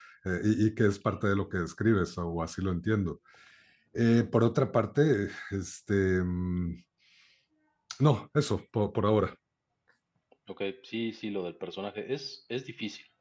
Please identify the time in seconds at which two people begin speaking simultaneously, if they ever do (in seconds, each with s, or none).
none